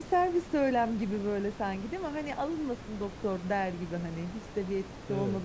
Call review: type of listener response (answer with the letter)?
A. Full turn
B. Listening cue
A